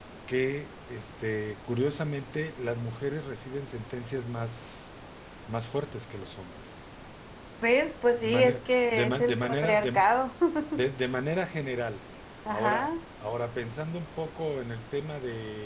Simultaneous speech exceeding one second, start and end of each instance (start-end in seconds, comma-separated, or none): 8.2-10.1